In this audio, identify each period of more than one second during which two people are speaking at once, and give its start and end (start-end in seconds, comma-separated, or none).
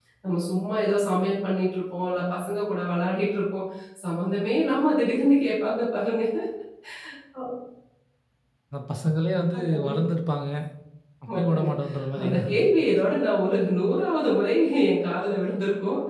none